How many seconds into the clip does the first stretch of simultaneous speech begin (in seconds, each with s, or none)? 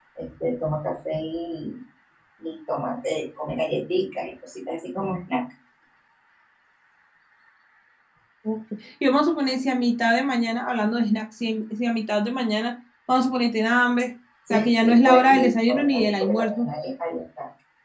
14.5 s